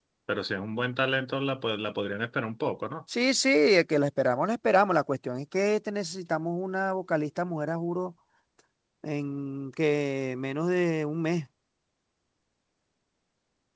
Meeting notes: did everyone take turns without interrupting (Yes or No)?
Yes